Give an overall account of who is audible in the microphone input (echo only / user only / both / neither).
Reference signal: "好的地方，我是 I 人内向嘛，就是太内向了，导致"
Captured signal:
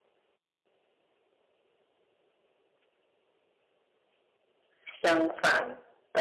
user only